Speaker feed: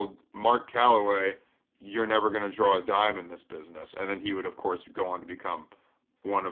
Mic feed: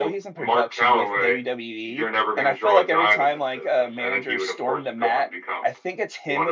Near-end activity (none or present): present